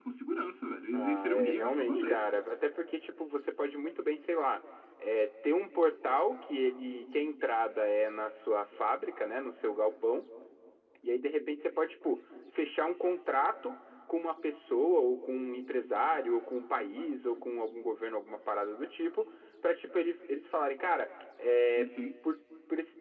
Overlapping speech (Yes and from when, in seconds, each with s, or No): Yes, from 0.9 s